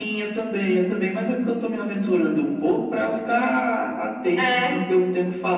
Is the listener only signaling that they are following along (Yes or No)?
Yes